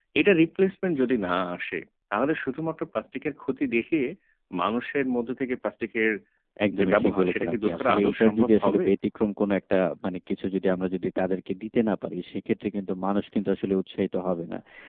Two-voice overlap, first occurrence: 6.8 s

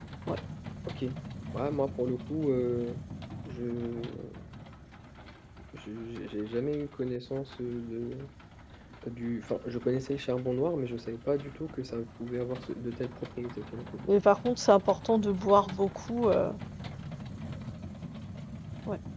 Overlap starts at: none

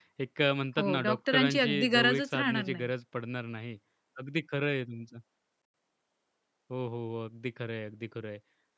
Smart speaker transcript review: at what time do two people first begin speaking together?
0.8 s

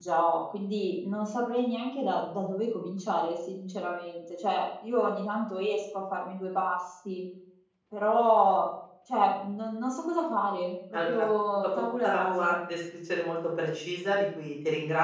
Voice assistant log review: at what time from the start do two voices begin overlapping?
10.9 s

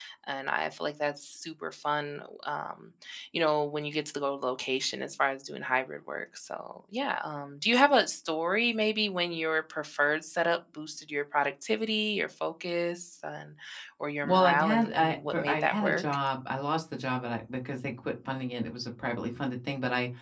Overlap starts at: 14.2 s

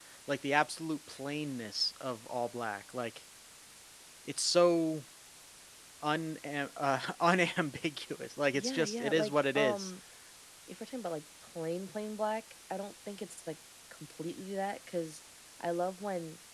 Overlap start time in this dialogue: 8.5 s

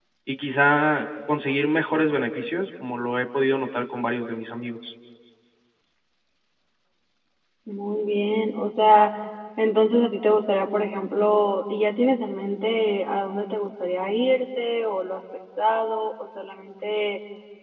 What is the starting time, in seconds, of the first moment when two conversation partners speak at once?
none

